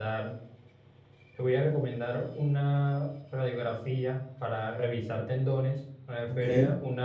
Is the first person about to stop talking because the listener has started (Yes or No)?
No